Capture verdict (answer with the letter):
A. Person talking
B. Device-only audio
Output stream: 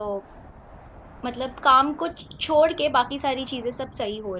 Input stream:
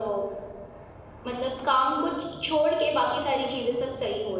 B